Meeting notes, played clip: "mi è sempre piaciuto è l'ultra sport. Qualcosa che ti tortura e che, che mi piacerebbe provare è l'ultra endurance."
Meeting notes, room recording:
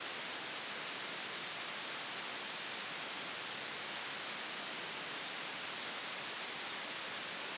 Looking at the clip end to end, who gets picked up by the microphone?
neither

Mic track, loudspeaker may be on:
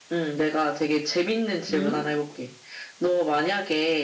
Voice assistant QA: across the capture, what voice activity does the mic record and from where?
both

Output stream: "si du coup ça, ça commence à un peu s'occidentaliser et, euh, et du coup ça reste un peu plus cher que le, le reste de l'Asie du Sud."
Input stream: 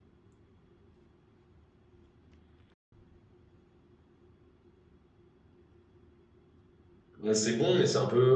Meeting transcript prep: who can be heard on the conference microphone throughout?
user only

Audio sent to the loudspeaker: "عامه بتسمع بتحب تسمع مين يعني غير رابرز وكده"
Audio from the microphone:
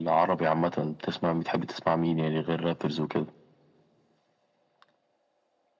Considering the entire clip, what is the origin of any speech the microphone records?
echo only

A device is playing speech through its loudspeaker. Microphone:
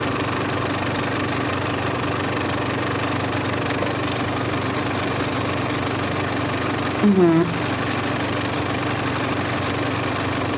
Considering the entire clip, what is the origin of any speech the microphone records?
user only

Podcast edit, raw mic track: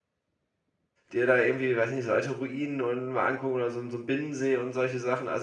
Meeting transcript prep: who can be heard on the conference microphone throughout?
user only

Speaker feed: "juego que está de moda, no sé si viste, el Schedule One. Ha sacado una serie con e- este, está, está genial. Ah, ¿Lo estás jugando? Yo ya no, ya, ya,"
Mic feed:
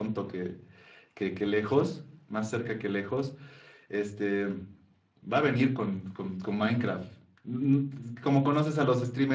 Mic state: user only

